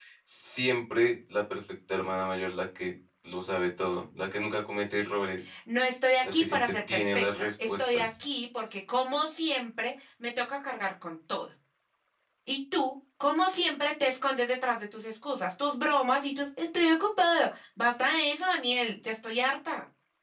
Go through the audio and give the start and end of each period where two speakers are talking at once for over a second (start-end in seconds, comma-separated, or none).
6.2-8.2